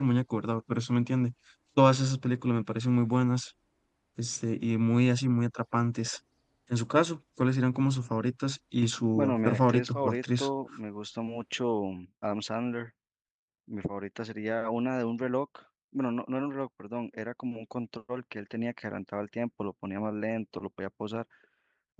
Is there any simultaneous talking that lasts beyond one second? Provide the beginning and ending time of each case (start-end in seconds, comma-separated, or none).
9.1-10.5